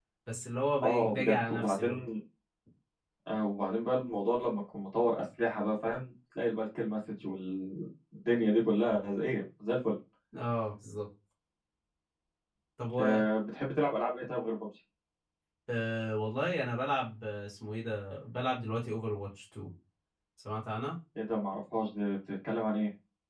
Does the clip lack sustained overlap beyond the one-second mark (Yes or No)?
No